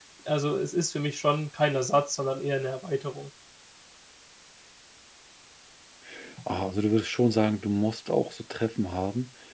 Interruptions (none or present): none